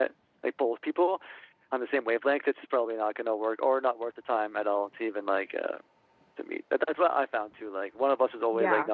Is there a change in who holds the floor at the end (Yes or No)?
No